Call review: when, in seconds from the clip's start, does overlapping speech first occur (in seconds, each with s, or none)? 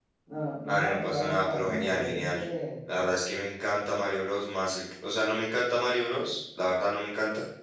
0.6 s